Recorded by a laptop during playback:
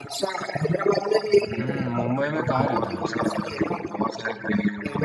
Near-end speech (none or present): present